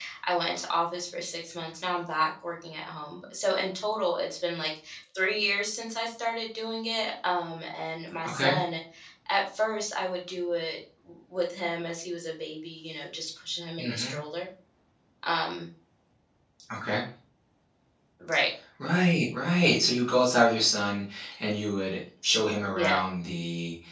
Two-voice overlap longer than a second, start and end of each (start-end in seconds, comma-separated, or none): none